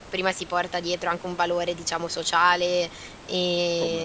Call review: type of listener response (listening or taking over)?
listening